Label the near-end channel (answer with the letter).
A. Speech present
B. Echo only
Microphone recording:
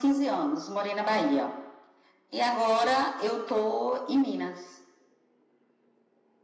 B